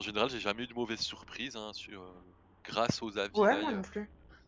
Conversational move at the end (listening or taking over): taking over